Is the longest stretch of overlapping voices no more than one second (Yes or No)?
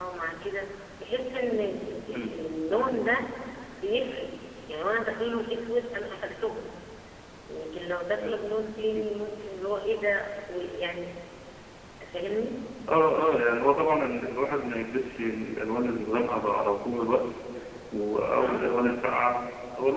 Yes